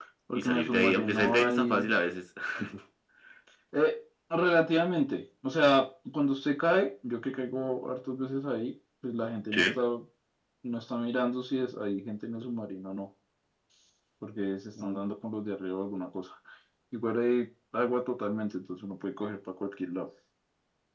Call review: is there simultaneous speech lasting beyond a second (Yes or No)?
Yes